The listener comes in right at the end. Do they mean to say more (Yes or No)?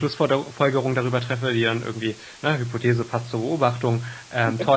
No